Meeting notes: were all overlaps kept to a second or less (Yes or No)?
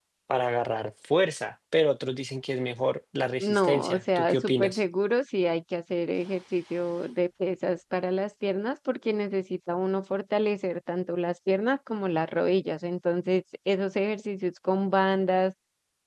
No